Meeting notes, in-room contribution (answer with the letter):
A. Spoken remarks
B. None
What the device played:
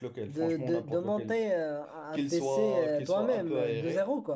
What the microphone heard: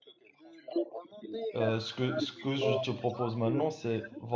A